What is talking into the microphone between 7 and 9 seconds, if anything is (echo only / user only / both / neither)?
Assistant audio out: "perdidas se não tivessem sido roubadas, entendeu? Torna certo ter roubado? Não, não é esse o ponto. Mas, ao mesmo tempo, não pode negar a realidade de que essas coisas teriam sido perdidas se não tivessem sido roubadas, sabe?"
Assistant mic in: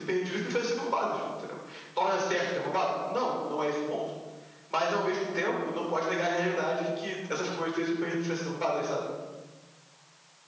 echo only